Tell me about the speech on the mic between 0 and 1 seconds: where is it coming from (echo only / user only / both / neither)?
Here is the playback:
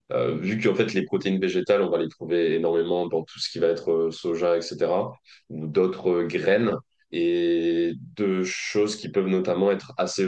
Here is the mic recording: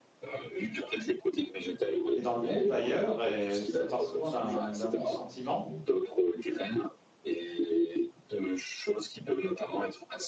echo only